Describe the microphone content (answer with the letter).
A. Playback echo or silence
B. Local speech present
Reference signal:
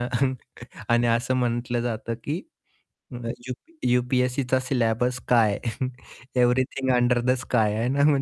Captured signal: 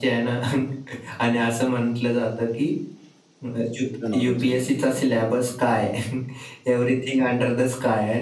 B